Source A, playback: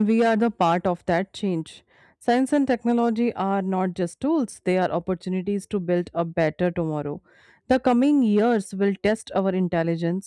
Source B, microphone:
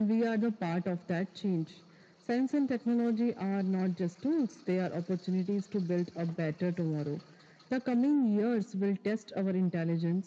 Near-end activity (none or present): none